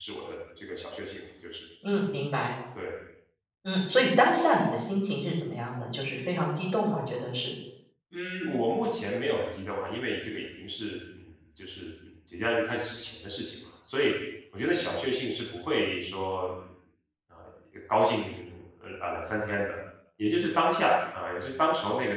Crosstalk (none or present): none